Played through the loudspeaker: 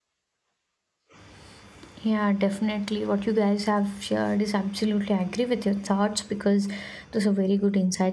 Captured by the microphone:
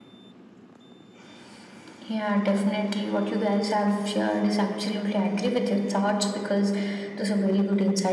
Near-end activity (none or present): none